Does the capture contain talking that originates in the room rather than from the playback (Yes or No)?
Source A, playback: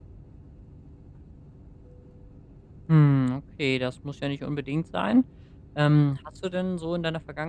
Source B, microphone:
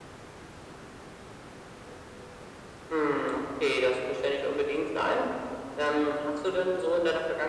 No